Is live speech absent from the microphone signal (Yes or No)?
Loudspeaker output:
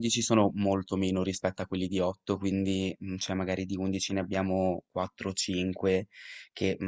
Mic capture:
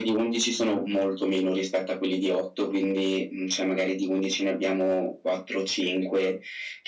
Yes